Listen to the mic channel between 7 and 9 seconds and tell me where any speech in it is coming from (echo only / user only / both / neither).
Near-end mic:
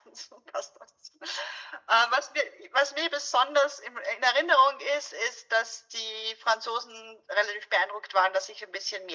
echo only